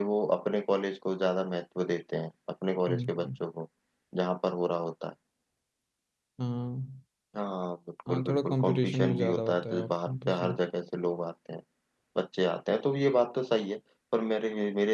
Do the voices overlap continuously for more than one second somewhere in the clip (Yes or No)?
Yes